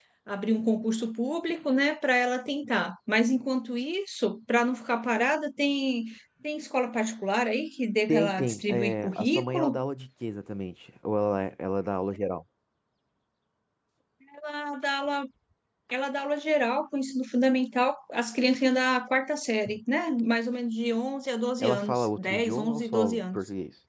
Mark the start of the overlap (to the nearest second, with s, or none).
8 s